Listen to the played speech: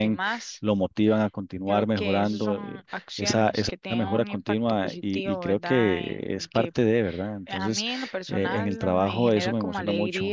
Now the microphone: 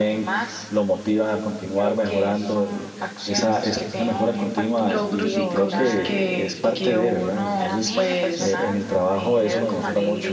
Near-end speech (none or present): present